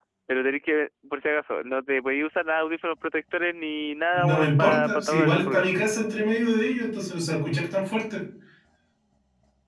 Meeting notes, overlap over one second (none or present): present